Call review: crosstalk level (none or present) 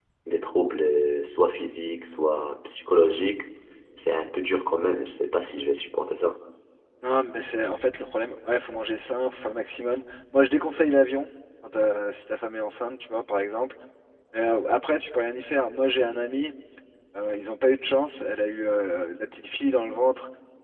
none